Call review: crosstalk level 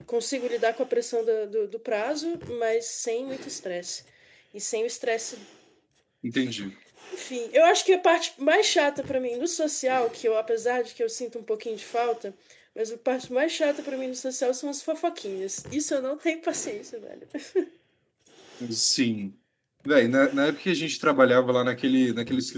none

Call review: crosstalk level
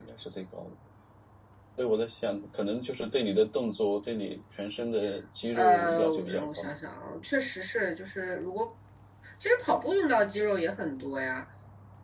present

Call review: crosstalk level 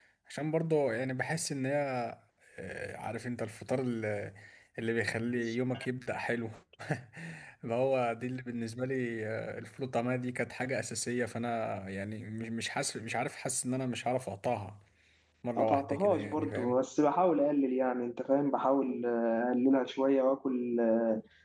present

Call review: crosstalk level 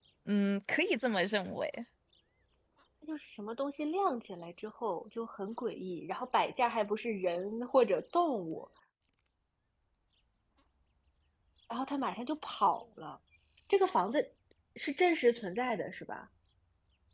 none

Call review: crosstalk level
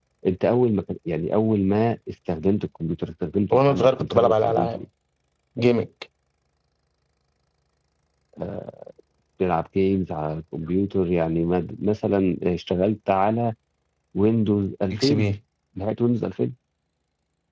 present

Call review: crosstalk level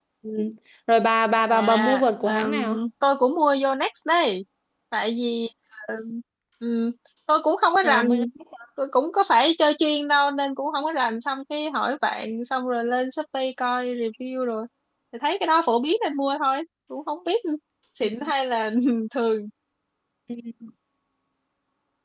present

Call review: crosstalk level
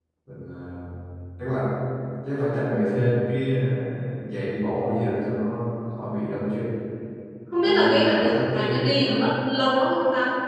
present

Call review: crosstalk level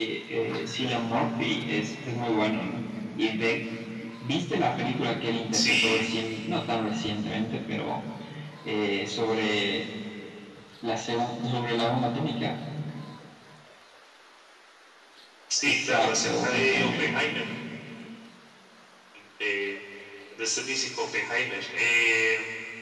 present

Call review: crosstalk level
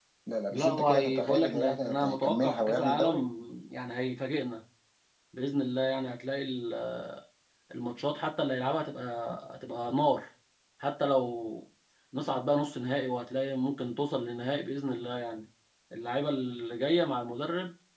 present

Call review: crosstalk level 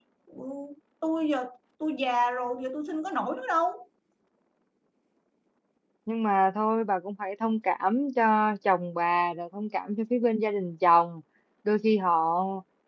none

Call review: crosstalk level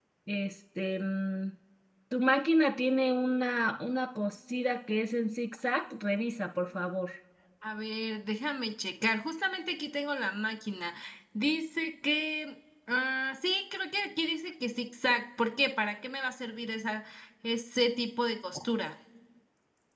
none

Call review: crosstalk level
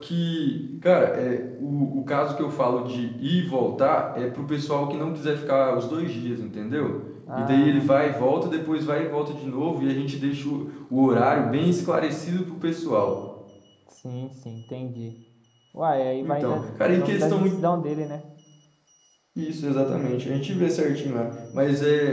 present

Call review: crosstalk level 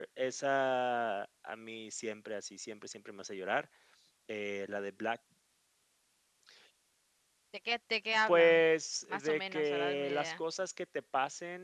present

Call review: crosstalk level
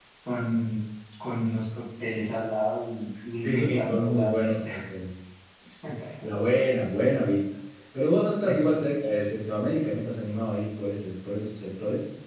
present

